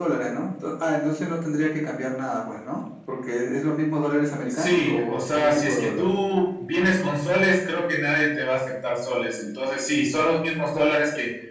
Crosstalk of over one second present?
Yes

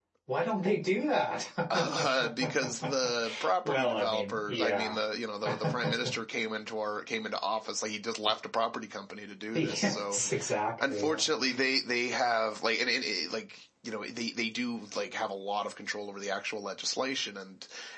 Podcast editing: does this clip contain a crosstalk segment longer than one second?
Yes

